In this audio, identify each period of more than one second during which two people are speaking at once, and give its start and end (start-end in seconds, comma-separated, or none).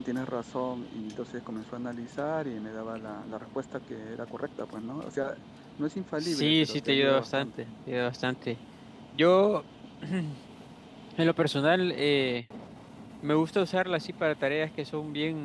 6.2-7.6